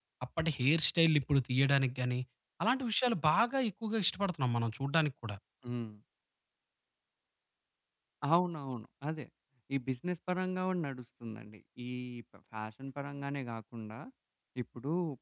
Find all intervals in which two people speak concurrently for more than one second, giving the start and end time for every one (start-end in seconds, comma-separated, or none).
none